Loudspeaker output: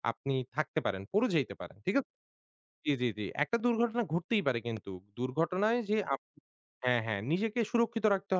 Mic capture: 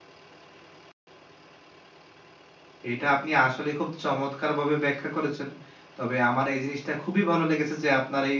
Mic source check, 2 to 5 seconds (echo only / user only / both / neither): user only